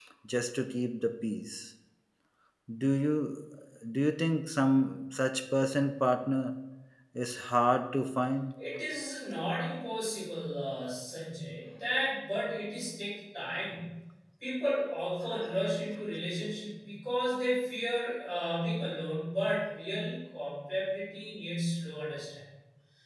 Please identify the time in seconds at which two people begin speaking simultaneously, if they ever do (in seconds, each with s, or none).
none